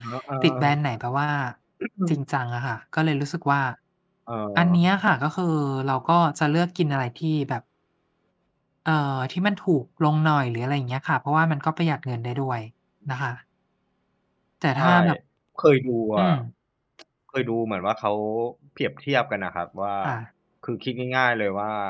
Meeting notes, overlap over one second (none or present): none